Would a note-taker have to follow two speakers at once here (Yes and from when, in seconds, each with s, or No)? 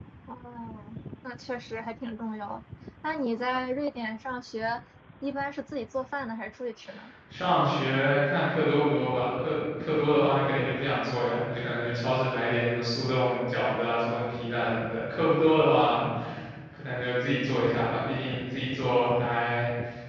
No